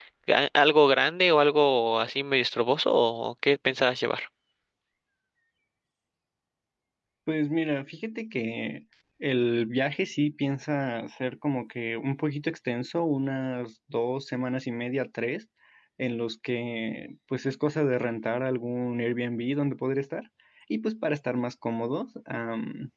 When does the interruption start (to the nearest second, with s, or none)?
none